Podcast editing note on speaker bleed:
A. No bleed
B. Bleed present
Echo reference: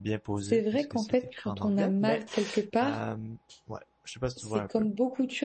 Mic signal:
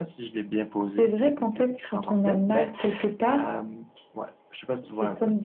B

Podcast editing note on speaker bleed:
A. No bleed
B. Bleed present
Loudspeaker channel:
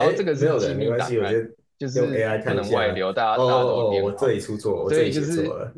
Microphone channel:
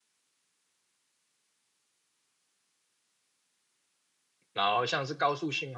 A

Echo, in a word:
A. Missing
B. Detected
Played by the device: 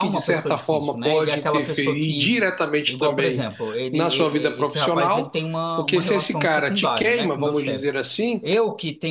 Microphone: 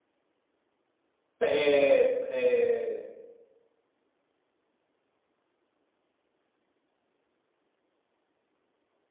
A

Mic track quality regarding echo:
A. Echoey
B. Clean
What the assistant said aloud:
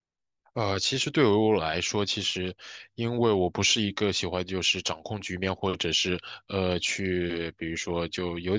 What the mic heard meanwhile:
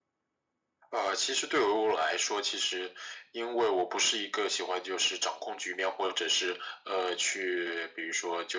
A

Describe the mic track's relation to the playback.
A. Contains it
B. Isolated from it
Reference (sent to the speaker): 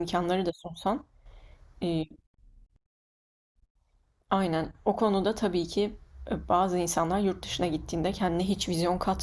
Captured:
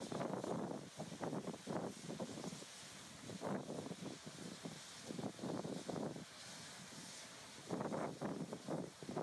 B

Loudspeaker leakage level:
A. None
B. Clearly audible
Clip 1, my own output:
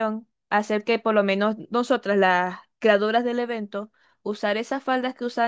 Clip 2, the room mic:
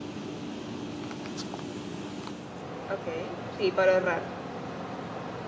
A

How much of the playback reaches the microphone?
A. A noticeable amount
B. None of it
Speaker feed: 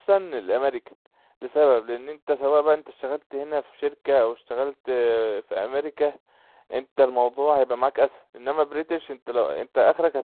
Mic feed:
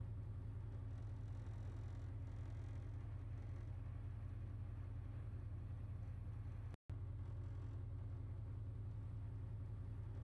B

